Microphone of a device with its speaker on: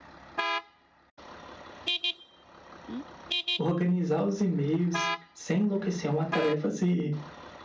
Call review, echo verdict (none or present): none